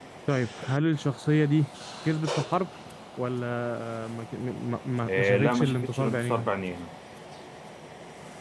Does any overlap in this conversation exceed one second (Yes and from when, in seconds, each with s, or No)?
Yes, from 5.1 s